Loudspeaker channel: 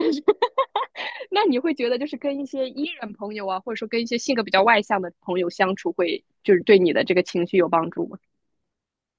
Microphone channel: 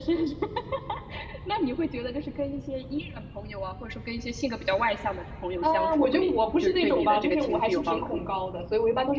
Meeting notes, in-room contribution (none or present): present